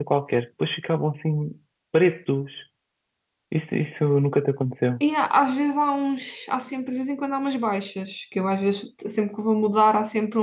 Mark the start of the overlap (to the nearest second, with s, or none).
none